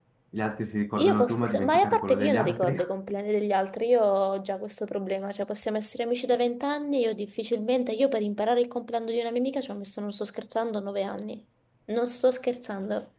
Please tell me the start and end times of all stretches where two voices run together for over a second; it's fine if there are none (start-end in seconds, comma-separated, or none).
1.0-2.8